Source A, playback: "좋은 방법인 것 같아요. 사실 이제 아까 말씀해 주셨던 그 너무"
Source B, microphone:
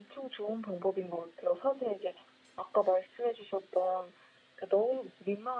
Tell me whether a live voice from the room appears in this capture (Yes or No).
No